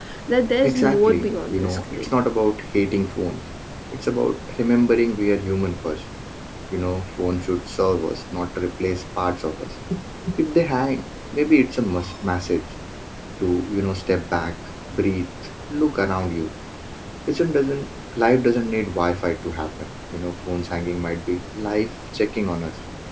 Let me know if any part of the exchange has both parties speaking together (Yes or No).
Yes